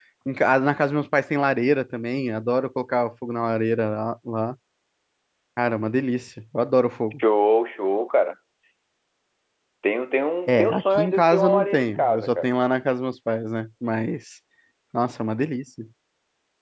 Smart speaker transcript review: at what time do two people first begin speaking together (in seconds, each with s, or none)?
10.5 s